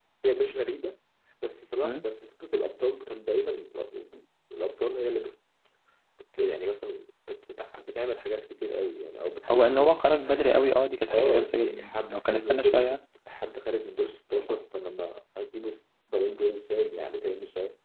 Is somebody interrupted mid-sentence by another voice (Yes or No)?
Yes